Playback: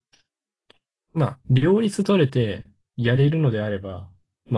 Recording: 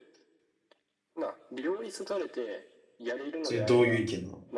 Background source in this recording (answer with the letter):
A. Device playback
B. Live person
A